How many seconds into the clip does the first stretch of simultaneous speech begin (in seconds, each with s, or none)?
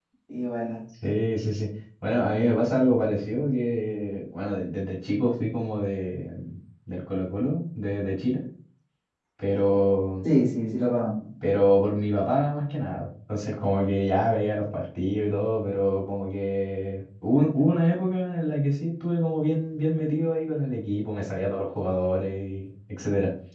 none